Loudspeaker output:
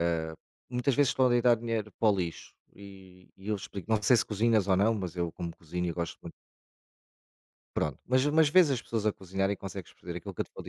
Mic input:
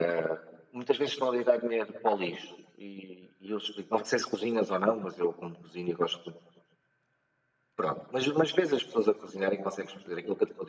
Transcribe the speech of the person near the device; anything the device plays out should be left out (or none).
none